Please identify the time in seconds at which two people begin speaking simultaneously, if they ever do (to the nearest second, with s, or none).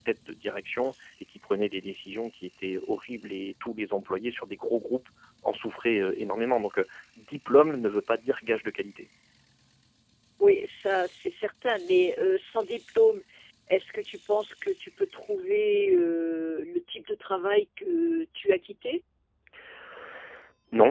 none